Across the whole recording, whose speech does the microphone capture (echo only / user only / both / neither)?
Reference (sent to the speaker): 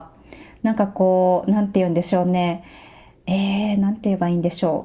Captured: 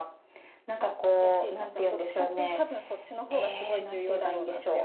both